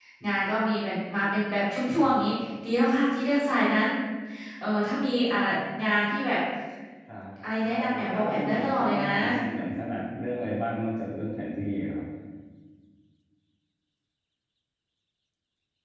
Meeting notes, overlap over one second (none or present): present